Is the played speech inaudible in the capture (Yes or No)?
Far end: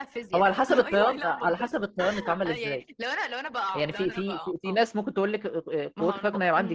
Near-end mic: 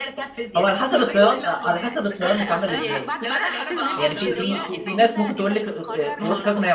No